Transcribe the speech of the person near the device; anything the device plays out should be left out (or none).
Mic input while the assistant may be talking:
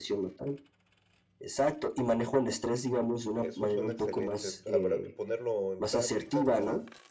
Eso suena excelente, habrá que ponerlo en práctica para